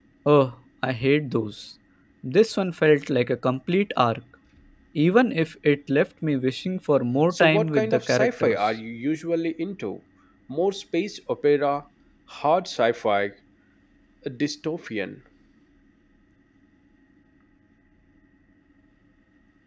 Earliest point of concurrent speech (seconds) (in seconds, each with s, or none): 7.3 s